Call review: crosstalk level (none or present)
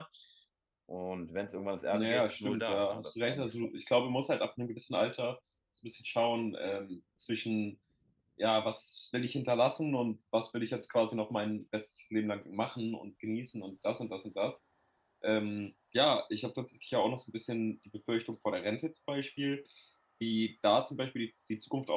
present